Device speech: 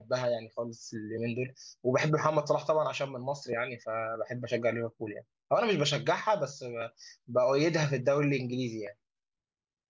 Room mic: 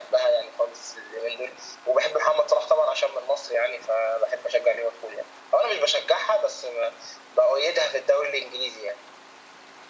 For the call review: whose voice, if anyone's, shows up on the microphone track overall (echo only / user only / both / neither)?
echo only